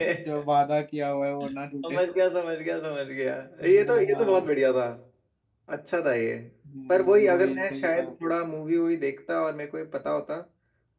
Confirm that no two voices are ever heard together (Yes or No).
No